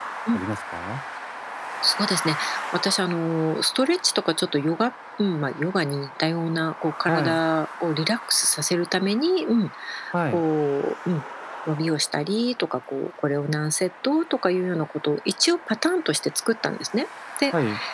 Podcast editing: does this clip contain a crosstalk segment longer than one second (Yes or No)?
No